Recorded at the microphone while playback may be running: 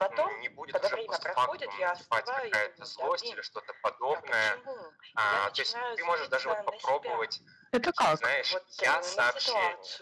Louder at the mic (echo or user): user